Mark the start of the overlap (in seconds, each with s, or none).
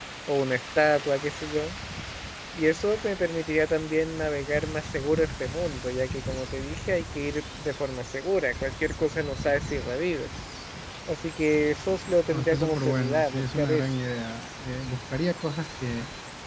12.3 s